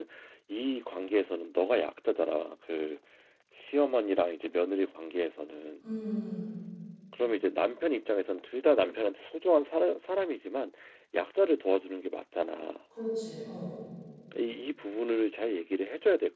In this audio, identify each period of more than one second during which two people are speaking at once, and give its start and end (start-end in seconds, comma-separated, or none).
none